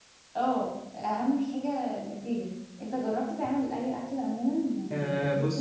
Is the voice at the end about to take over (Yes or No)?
Yes